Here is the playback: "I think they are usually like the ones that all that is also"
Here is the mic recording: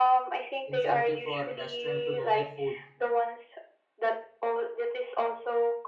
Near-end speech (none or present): present